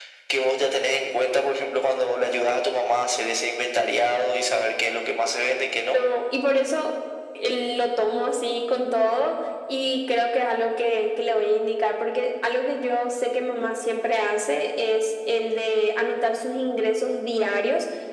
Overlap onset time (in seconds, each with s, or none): none